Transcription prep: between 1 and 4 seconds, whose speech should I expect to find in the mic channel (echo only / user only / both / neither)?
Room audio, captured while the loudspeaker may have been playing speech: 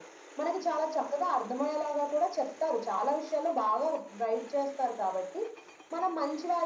echo only